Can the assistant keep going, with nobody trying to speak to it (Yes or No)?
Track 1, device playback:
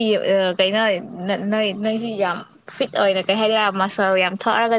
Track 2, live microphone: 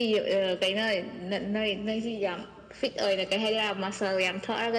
Yes